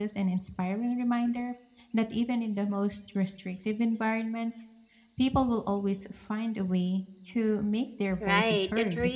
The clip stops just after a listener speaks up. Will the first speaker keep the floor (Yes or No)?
No